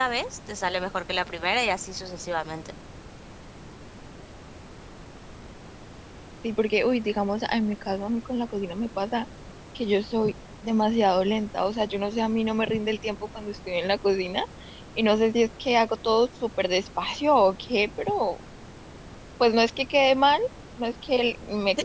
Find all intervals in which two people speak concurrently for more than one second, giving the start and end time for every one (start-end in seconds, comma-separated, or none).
none